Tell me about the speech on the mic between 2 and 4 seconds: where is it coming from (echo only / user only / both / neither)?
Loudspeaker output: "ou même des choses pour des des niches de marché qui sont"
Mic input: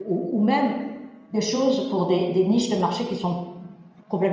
echo only